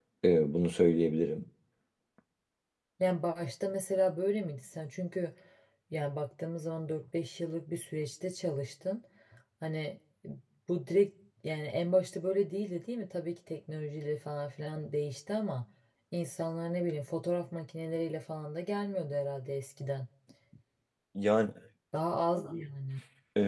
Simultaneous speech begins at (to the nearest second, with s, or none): none